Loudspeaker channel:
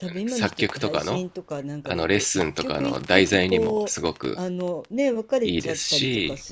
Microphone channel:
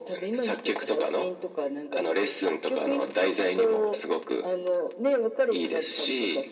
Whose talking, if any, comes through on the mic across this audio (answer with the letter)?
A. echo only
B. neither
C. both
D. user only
A